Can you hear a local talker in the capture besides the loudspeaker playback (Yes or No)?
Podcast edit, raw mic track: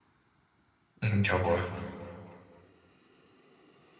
Yes